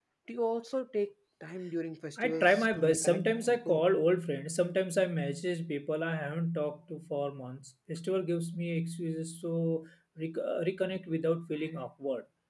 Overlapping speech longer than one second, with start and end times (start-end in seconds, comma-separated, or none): 2.2-3.9